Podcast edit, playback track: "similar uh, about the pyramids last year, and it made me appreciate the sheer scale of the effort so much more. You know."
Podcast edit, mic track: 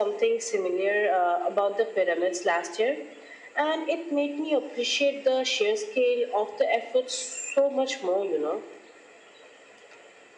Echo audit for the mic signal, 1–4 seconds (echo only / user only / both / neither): echo only